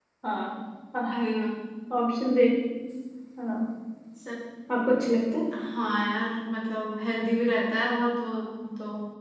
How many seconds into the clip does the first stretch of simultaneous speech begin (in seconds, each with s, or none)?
none